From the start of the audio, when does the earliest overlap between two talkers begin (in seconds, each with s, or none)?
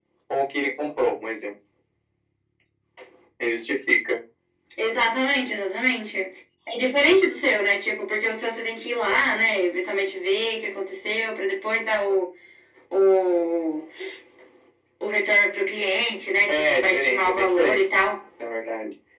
16.5 s